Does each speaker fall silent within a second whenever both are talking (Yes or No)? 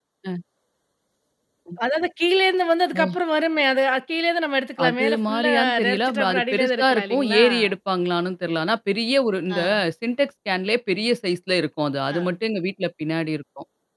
No